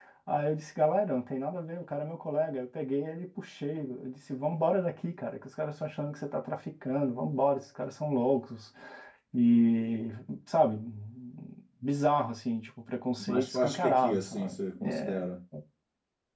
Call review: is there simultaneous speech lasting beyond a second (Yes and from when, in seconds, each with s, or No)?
Yes, from 13.2 s